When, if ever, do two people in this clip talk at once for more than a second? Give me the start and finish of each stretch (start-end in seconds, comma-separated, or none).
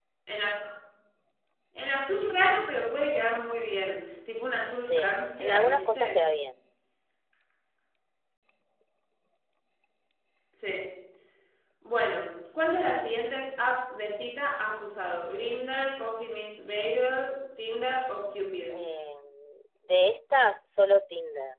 4.7-6.2